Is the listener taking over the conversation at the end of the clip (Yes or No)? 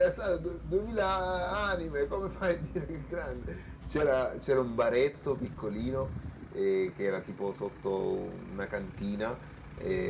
No